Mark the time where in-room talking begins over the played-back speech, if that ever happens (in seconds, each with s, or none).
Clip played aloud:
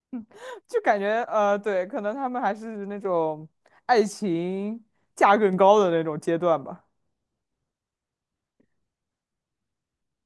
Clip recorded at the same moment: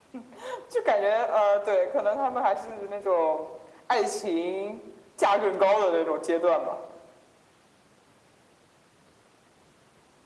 none